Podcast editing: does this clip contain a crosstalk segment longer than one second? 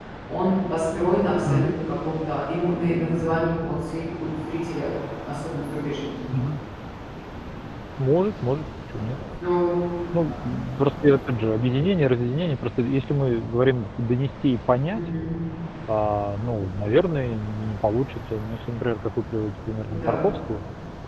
No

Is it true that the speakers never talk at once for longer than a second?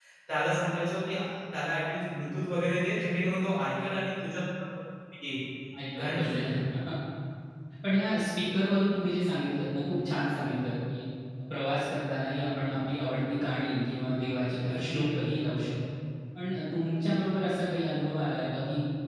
Yes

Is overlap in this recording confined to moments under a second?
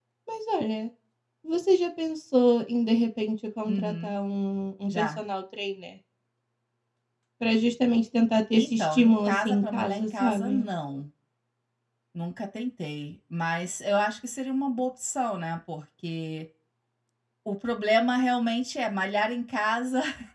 No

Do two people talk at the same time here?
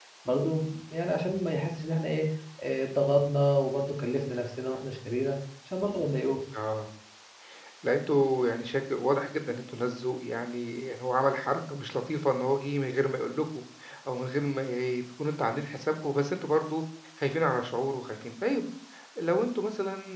No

